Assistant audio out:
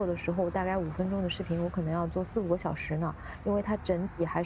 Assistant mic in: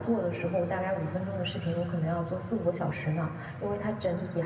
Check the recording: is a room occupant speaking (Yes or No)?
No